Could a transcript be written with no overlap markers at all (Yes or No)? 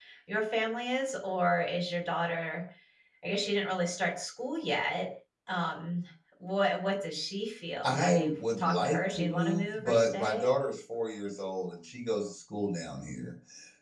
No